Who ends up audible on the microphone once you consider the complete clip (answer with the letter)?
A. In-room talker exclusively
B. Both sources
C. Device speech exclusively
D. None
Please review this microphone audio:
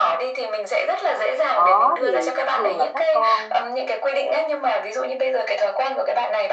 B